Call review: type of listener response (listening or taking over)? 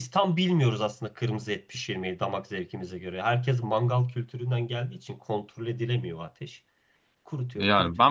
taking over